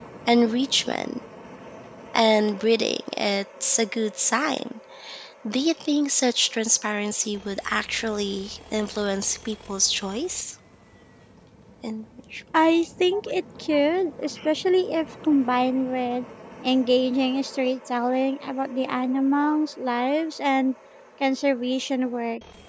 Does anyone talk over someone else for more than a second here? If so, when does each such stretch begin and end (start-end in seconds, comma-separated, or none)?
none